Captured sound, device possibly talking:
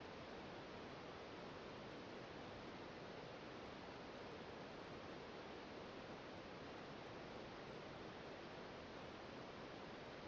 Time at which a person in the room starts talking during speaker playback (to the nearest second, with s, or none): none